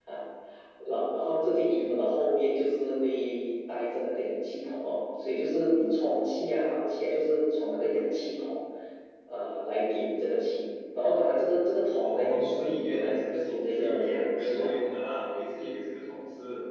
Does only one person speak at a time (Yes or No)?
No